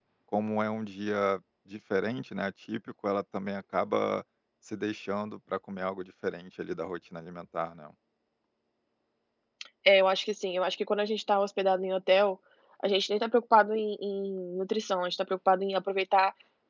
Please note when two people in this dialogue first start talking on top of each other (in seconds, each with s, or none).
none